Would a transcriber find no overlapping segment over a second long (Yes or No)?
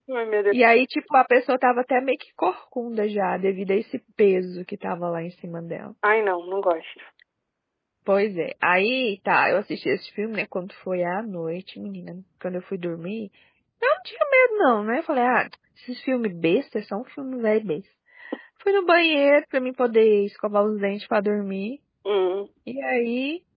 Yes